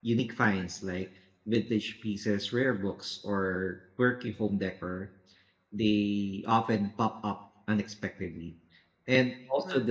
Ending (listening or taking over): listening